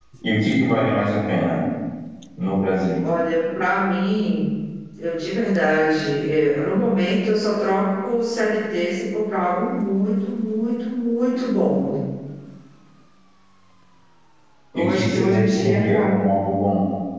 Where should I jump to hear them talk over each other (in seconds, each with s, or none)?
14.8 s